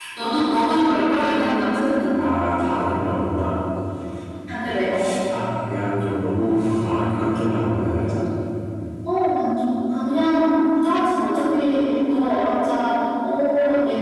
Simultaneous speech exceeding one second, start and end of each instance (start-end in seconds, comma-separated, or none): none